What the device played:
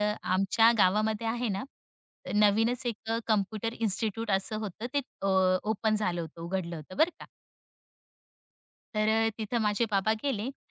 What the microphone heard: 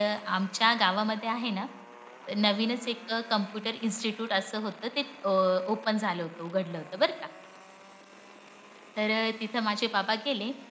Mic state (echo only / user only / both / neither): echo only